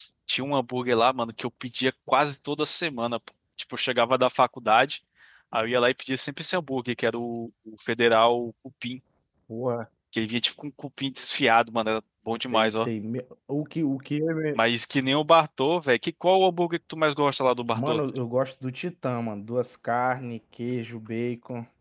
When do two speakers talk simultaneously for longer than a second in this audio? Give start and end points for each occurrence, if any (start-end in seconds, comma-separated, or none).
none